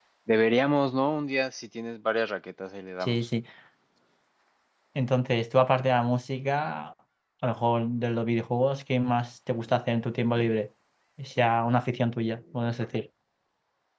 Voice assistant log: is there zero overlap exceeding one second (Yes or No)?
Yes